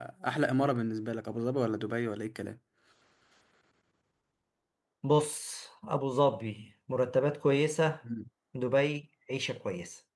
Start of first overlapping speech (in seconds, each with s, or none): none